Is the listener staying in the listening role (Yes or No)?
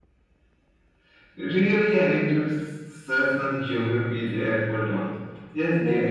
No